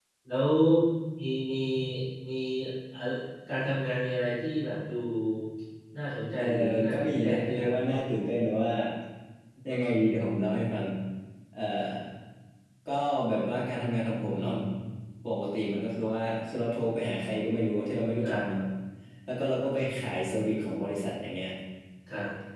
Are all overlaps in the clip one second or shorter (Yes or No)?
No